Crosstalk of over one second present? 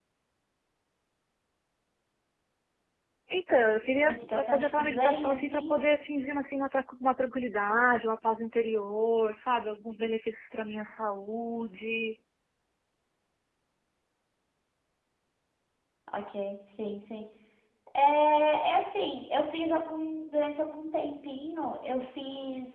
Yes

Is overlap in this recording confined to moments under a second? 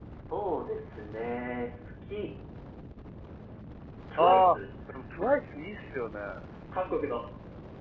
Yes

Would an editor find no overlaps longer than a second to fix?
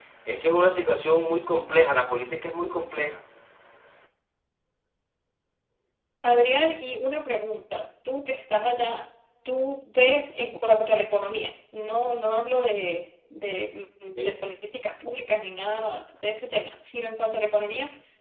Yes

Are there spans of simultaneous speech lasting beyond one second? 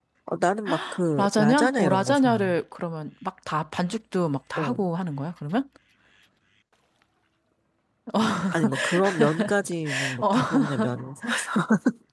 Yes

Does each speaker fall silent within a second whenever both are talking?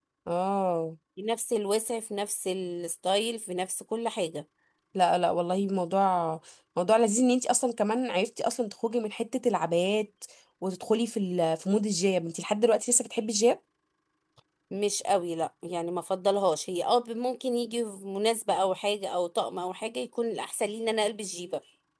Yes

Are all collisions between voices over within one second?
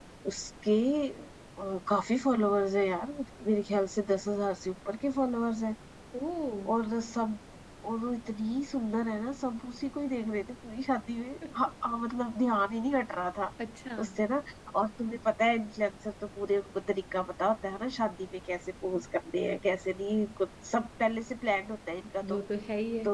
Yes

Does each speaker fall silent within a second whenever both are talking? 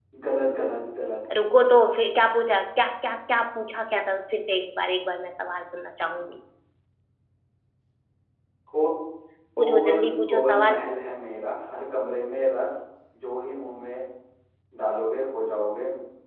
No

